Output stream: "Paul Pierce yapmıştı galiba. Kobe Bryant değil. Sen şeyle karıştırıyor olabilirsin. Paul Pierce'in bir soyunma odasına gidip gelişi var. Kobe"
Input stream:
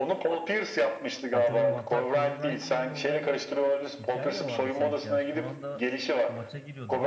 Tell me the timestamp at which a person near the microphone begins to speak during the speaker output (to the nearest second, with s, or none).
1 s